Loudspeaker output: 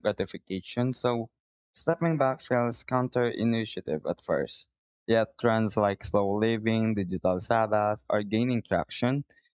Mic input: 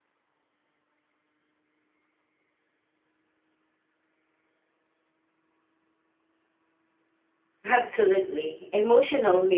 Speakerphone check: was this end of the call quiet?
No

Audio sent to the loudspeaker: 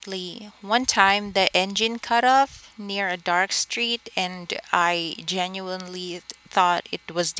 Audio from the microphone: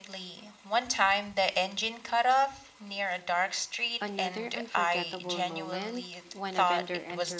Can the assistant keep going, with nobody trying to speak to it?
No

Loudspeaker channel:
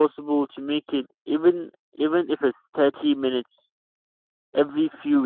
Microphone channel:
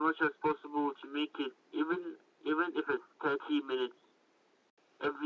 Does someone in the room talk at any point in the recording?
No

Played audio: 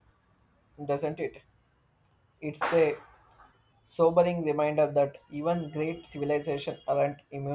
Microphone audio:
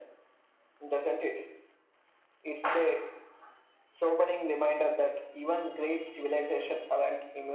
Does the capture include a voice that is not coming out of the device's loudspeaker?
No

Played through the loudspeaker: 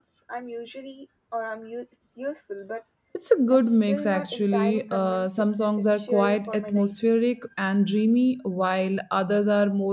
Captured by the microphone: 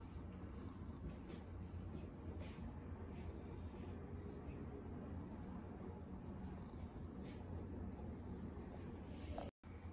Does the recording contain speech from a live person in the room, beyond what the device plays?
No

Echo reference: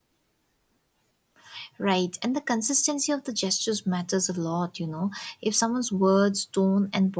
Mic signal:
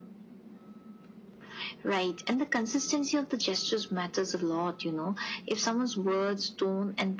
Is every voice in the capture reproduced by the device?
Yes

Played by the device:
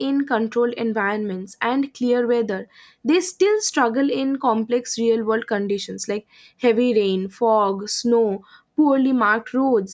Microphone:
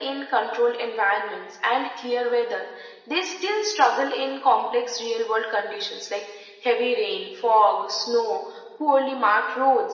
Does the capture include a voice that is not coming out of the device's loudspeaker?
No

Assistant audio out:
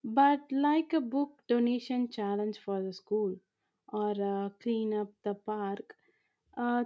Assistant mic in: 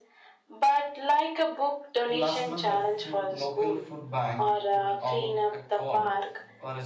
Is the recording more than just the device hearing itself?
Yes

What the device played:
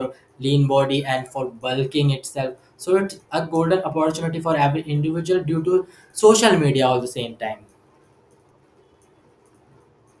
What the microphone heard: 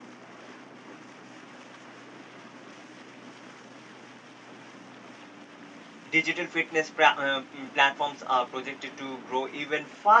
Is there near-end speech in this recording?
Yes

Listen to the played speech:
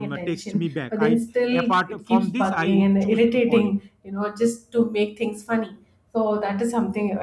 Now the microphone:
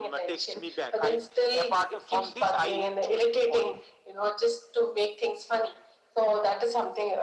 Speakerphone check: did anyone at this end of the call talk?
No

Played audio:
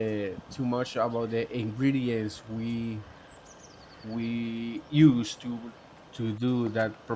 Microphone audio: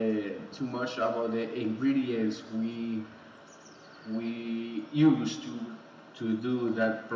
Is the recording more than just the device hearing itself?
No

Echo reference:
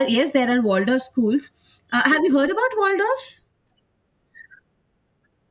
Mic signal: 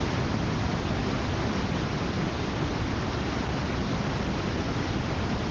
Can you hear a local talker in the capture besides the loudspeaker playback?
No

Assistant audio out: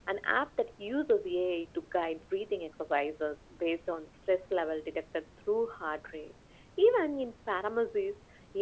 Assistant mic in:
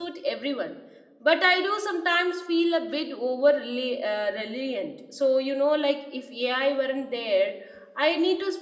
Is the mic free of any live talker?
No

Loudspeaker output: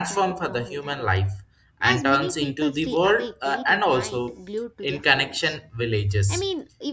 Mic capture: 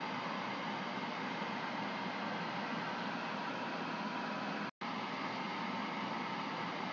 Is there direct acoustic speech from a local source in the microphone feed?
No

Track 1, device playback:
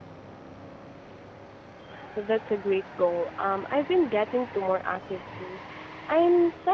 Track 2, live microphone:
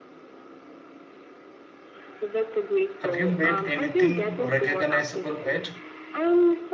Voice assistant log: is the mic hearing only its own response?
No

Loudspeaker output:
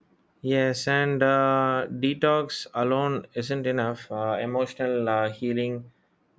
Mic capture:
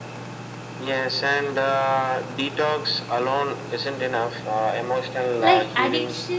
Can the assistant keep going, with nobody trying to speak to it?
No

